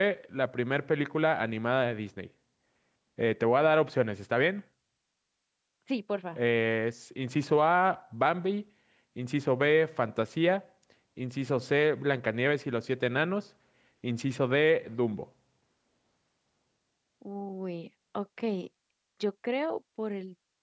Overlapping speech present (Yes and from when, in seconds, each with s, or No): No